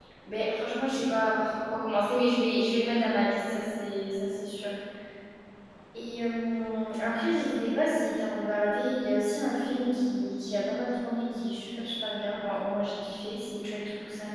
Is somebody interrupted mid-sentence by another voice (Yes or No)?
No